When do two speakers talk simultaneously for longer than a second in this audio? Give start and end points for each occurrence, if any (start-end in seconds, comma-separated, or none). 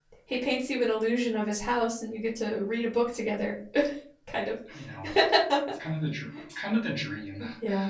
none